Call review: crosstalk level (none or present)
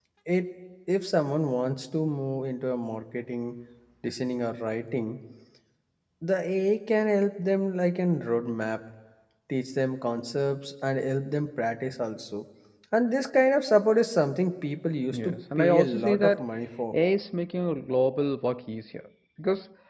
present